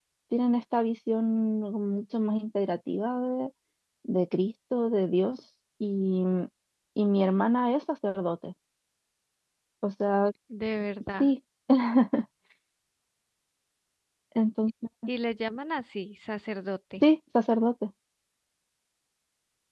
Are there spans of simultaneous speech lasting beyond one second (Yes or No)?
No